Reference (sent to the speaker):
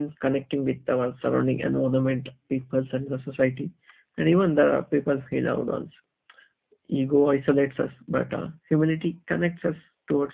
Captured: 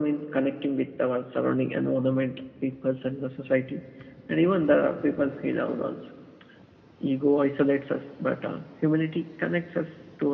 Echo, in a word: present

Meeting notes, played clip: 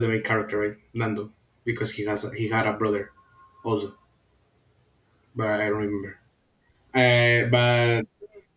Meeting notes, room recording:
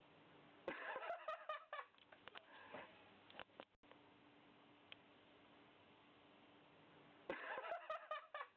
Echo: none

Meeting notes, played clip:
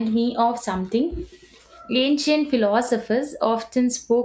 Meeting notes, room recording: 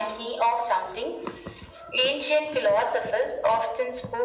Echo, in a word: present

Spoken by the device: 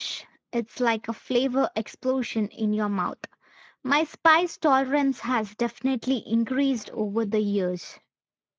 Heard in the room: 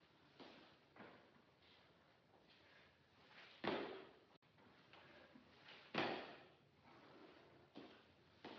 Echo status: none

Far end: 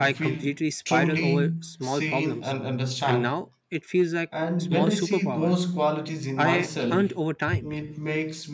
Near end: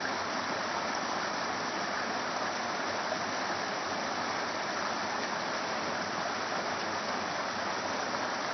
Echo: none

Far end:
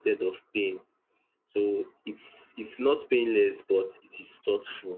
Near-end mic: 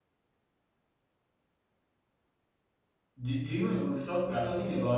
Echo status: none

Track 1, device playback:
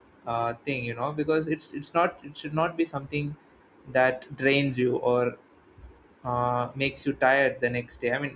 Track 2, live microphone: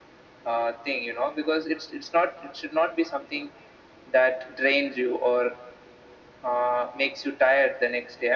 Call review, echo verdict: present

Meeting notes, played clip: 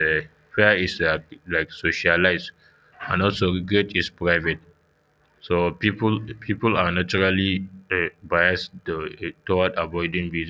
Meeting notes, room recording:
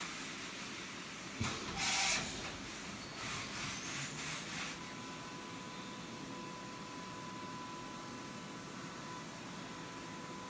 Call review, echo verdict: none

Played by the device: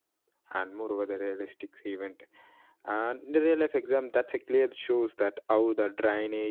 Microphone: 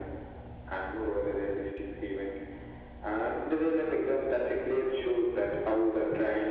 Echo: present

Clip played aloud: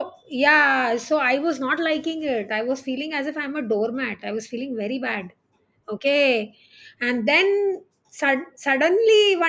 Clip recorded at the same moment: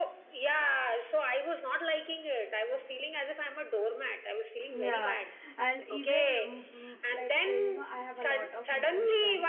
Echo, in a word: present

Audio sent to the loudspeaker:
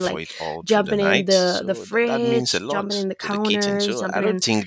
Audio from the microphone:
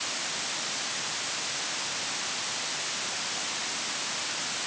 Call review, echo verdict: none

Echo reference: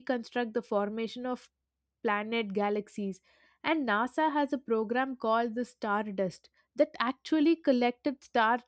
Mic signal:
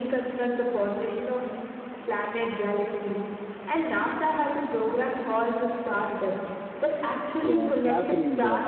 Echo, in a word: present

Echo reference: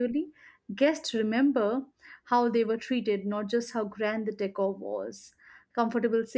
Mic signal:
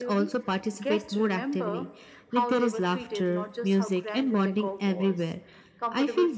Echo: present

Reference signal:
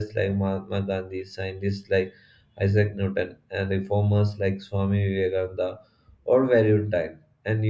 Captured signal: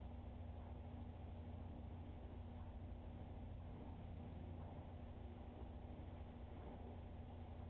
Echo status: none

